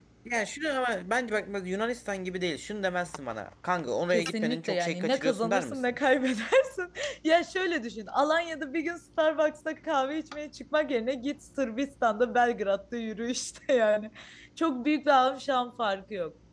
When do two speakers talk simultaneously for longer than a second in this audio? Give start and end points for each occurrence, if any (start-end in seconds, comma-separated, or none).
4.1-6.0